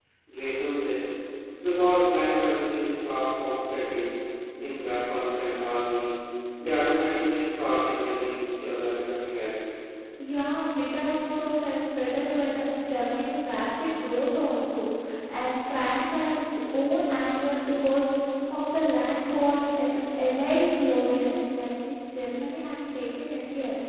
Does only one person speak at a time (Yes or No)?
Yes